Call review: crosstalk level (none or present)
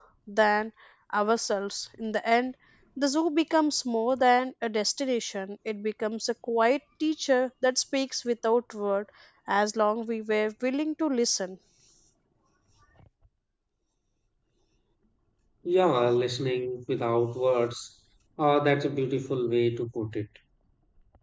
none